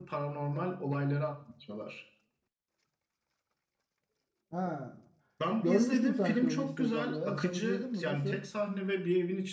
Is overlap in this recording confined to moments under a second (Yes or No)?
No